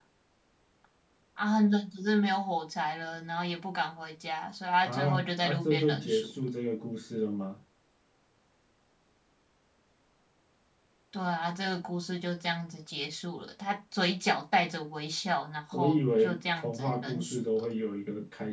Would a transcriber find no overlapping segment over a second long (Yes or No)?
No